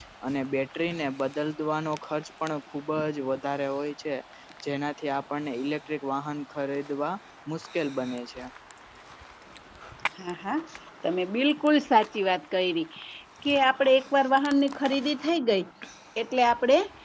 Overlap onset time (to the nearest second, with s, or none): none